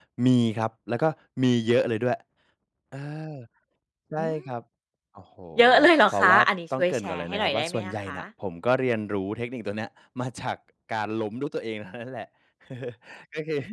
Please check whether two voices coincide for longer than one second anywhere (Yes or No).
Yes